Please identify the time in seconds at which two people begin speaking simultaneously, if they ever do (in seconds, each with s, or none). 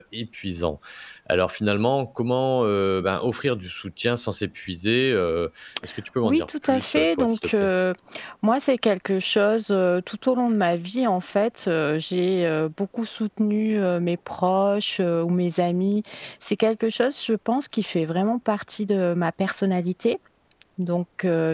6.2 s